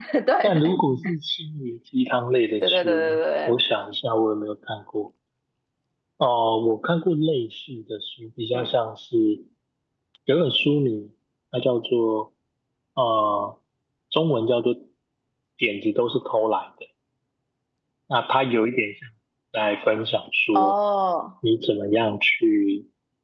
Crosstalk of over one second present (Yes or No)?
No